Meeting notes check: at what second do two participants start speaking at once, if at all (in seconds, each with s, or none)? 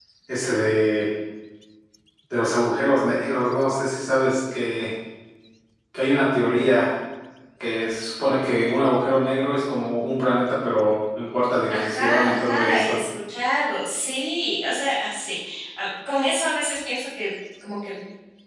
11.7 s